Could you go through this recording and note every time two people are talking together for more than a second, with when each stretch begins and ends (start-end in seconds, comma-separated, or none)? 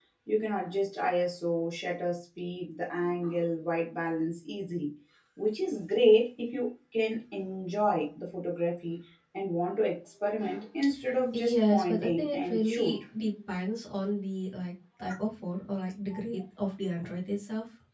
11.3-13.0